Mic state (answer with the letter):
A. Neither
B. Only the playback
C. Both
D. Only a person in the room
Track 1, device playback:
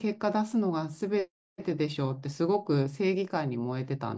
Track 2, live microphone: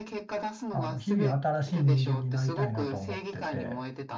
C